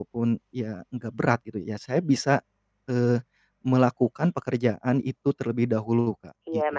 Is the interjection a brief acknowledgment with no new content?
No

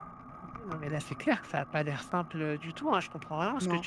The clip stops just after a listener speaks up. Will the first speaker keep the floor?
Yes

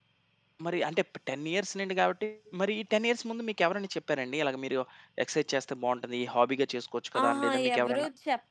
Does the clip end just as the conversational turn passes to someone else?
Yes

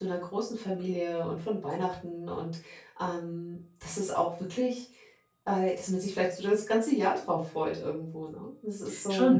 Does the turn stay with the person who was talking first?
No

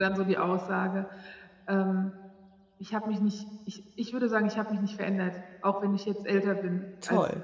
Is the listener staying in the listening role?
Yes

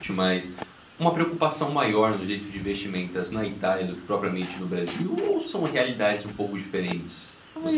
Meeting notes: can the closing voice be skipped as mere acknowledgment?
No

